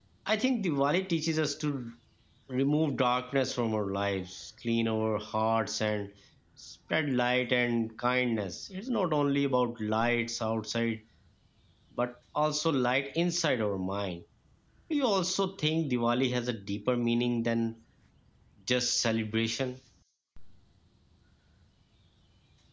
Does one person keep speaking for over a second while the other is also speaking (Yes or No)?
No